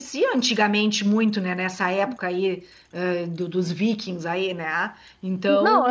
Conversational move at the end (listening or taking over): taking over